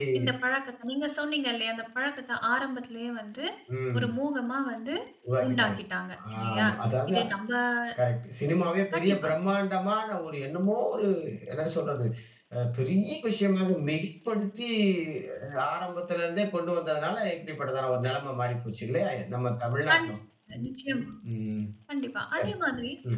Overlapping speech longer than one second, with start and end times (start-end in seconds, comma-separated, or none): none